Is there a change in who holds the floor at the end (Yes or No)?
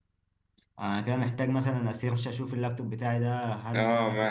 Yes